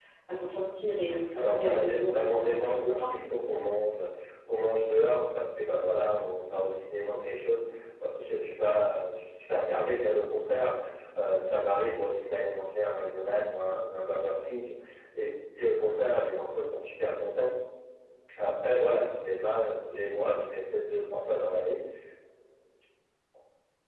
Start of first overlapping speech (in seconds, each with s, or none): 1.4 s